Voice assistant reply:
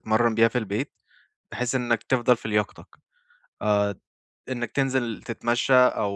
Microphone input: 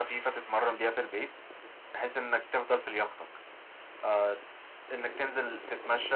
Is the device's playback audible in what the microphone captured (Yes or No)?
Yes